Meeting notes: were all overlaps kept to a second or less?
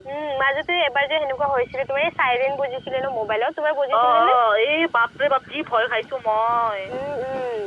Yes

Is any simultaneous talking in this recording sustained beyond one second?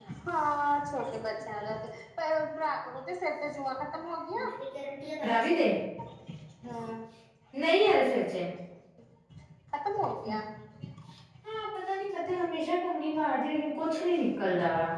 No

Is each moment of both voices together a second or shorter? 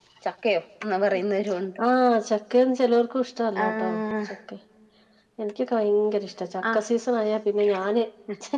Yes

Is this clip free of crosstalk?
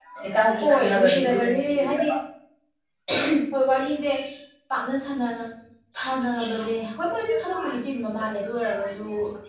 No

